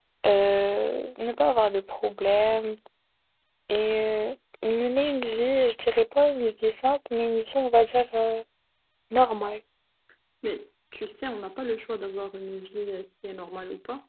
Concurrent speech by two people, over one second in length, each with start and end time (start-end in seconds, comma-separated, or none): none